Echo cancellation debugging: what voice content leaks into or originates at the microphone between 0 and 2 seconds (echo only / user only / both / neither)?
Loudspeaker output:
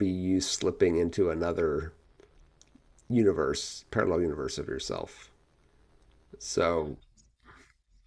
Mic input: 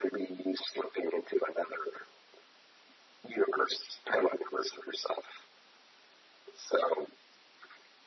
echo only